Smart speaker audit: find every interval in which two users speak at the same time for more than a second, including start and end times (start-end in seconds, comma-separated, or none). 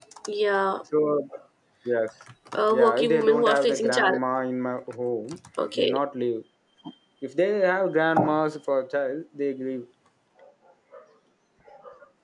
2.7-4.2